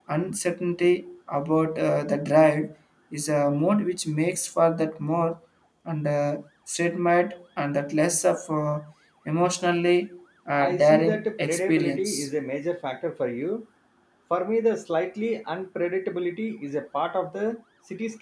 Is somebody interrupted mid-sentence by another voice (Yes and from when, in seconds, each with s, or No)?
Yes, from 10.6 s